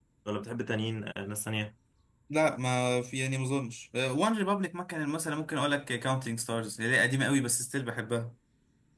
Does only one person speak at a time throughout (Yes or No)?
Yes